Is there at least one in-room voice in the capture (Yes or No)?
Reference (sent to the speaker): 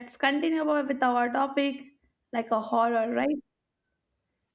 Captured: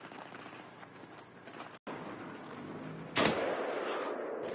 No